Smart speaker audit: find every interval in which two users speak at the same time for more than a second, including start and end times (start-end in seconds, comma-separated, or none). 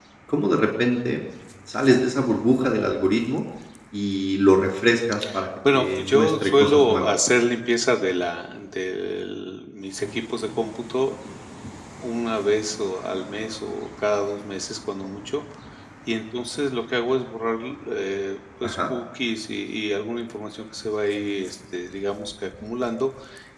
5.7-7.1